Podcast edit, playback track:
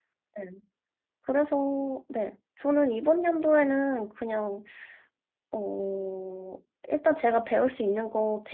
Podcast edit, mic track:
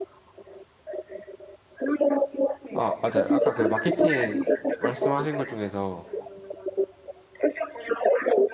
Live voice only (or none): 아, 맞아요. 아까 그 마케팅 말씀하신 것 중에서